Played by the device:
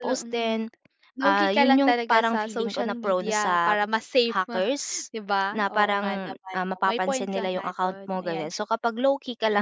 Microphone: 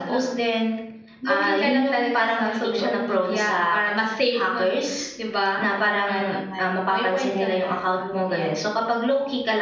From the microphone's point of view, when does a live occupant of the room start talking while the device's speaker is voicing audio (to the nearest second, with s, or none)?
none